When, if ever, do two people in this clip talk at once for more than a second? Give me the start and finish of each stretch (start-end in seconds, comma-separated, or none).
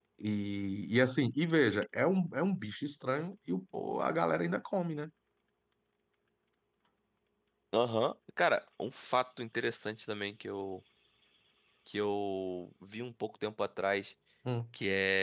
none